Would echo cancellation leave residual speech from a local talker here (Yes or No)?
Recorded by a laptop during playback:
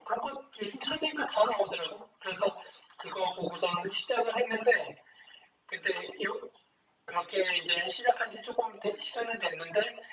No